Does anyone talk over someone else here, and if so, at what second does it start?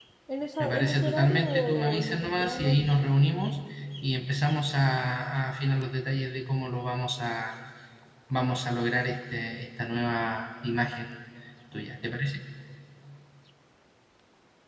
0.6 s

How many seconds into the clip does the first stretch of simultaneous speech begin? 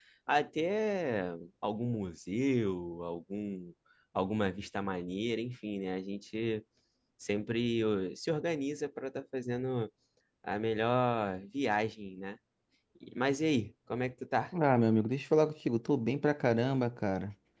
none

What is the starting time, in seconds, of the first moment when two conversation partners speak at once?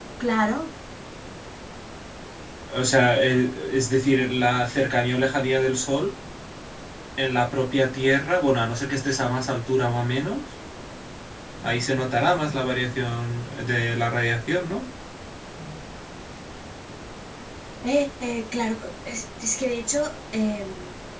none

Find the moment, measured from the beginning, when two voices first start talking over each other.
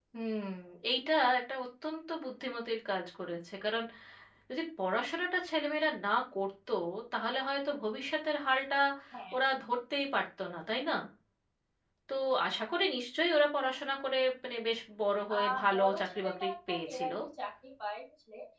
15.3 s

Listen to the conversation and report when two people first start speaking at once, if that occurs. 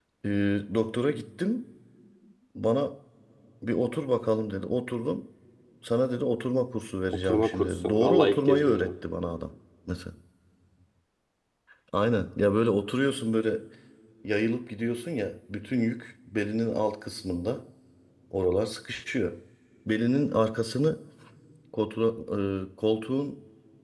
7.1 s

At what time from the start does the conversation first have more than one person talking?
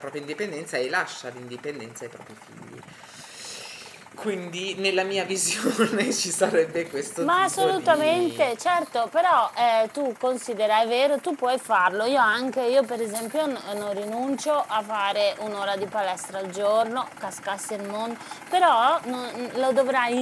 7.2 s

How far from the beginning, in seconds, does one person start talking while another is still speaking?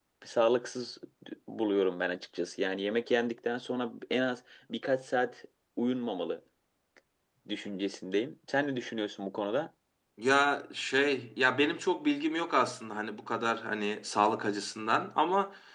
none

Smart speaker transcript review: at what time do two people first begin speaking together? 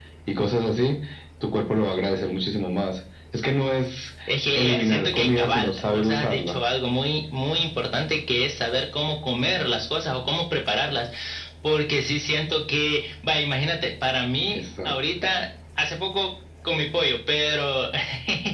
4.5 s

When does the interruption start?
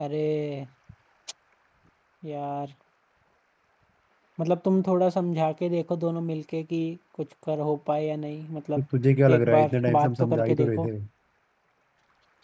9.3 s

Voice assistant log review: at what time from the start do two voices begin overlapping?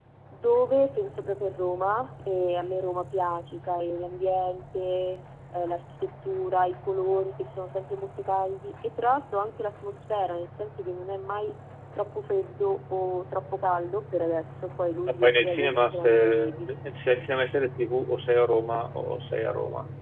15.1 s

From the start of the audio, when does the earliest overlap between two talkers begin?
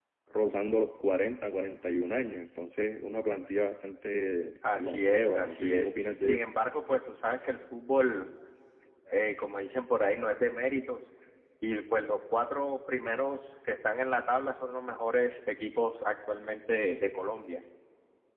4.6 s

